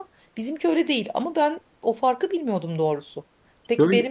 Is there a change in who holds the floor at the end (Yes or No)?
No